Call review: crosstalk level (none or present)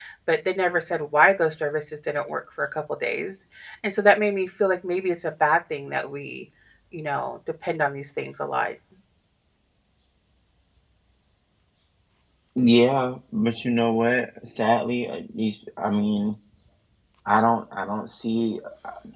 none